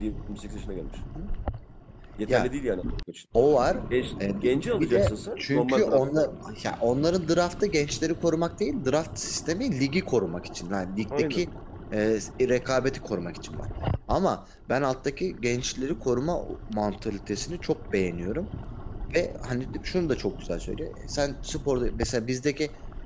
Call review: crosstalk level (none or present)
present